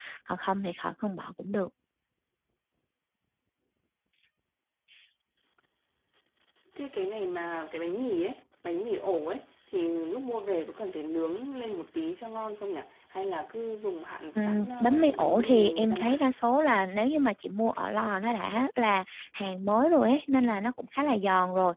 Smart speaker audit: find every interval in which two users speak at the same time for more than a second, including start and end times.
14.4-16.3

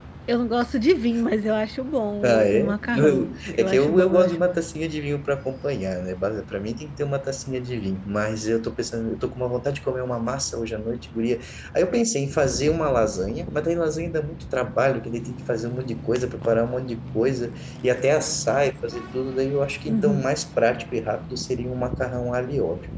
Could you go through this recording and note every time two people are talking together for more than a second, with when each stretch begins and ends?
2.2-4.6

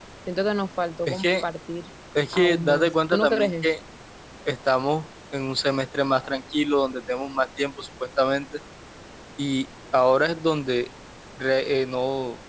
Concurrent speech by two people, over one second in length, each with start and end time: 2.3-3.7

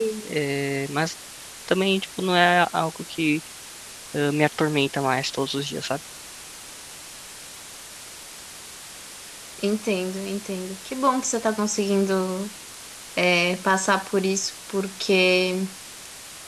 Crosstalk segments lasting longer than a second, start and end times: none

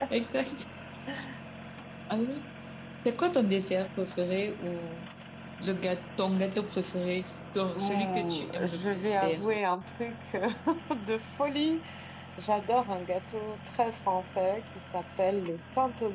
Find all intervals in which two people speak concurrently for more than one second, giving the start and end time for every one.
7.7-9.5

